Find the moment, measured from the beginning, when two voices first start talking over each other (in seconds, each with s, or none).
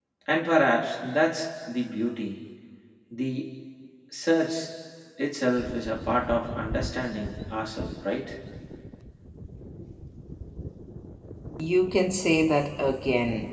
none